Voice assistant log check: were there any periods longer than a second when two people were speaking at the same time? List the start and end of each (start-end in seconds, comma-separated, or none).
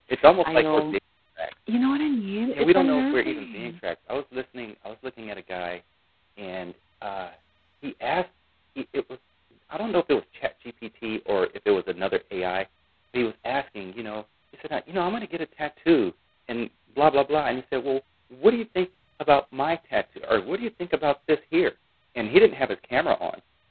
2.5-3.7